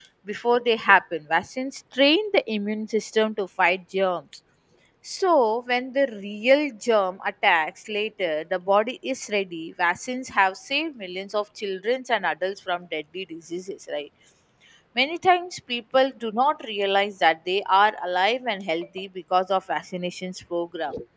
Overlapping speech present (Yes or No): No